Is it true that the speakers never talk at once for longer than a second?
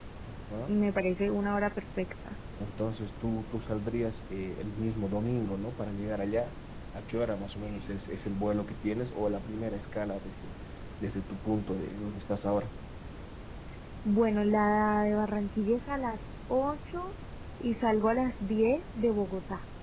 Yes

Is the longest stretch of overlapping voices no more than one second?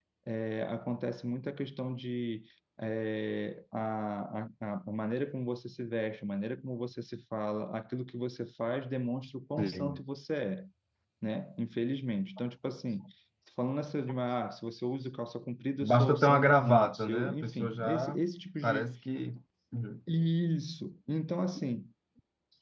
No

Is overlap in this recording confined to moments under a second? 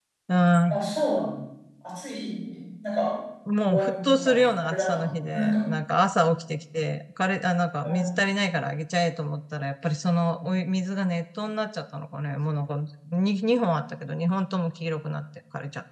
No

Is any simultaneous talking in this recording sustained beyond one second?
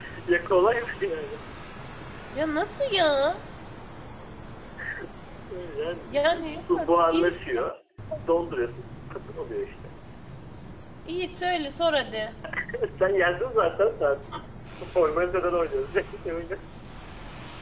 Yes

